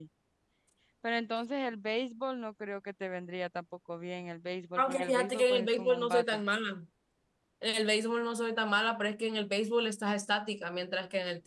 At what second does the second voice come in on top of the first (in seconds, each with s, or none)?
4.8 s